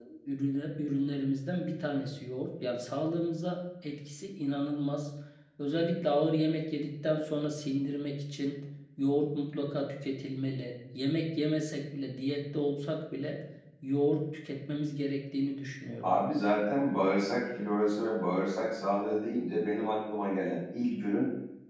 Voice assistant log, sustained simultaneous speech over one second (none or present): none